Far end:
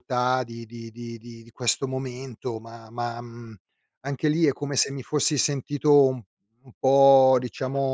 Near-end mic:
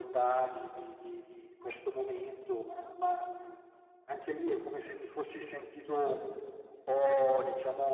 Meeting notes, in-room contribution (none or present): none